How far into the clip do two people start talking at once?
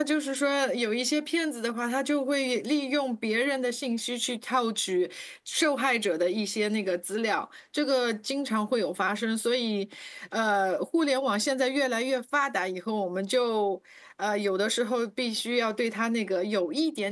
none

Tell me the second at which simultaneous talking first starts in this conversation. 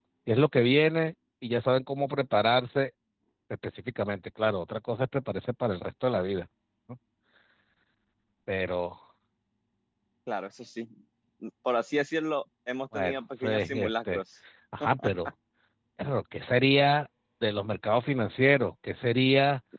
12.9 s

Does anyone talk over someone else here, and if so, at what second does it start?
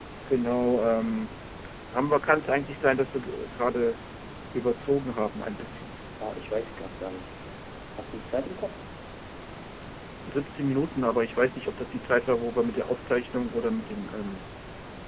none

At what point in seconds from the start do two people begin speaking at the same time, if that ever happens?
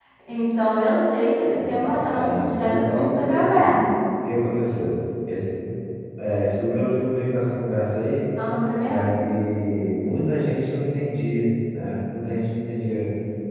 1.6 s

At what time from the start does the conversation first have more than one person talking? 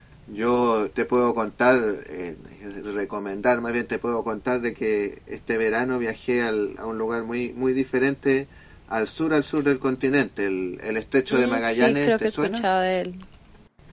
11.3 s

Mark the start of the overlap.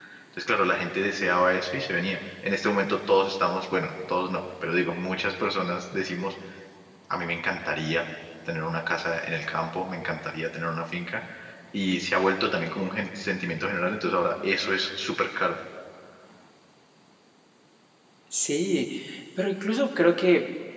none

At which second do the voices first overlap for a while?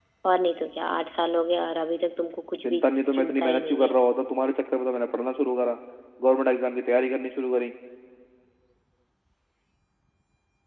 2.6 s

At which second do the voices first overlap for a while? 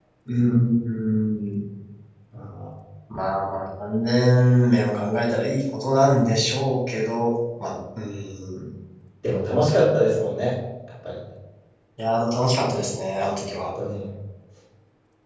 none

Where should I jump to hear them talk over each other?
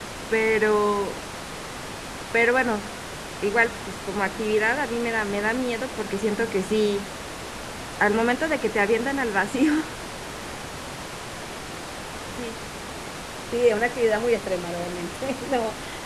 none

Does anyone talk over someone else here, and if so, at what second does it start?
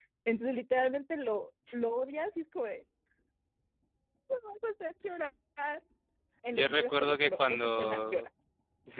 6.5 s

